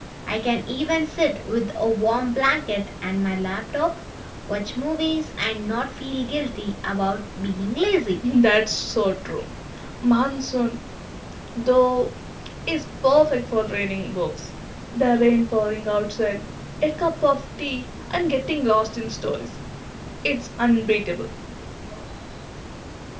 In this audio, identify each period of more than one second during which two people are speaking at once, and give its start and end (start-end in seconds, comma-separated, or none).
none